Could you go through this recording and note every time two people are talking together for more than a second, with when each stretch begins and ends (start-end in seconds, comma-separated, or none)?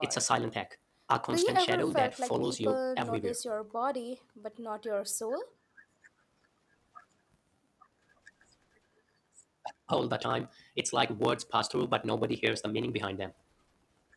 1.3-3.4